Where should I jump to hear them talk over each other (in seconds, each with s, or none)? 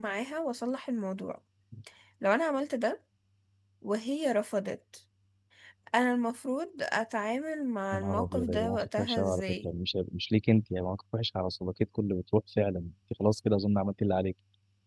7.9 s